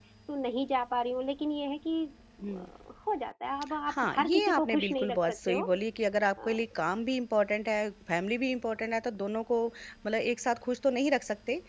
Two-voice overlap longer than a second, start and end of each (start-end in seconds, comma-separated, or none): 4.0-5.6